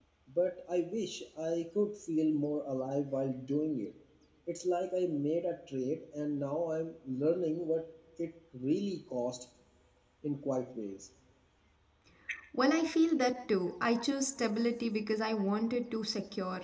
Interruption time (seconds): none

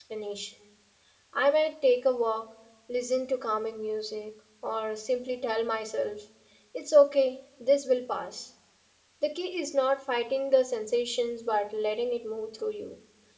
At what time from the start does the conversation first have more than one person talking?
none

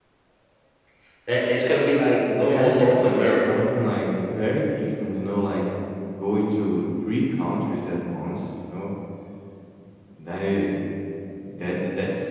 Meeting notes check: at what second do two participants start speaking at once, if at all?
2.3 s

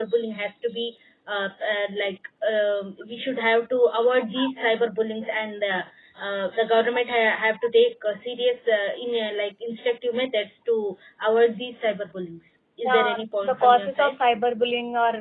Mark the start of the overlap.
12.8 s

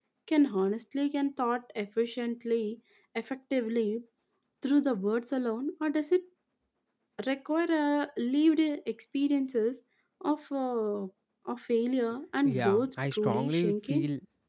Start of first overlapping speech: 12.4 s

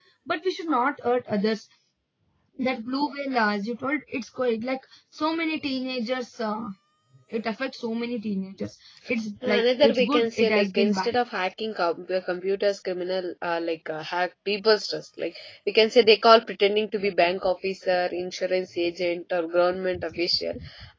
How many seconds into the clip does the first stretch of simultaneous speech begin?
9.4 s

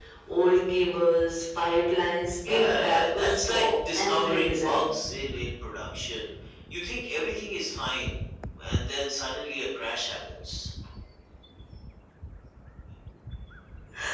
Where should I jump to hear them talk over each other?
2.4 s

